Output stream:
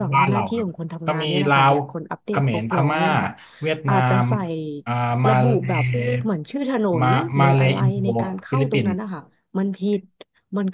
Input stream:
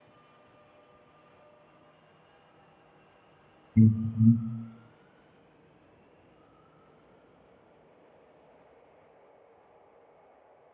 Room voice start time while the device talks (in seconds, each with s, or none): 3.8 s